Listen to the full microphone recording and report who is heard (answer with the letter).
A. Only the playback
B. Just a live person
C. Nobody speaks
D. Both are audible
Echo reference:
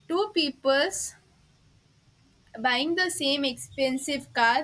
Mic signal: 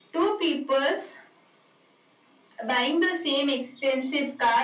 A